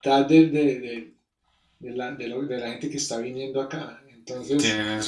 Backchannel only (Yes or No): Yes